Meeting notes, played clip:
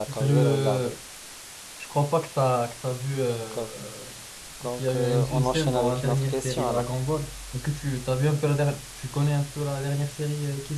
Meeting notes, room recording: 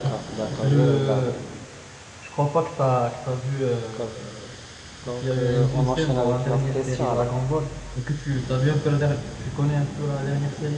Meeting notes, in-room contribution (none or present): none